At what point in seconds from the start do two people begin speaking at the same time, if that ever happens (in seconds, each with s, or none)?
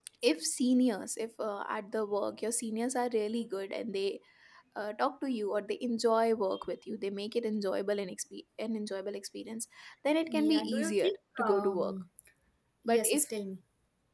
10.3 s